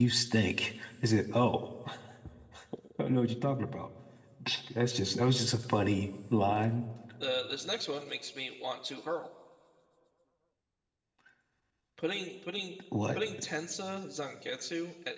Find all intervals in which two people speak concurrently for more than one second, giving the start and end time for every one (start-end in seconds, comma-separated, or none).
none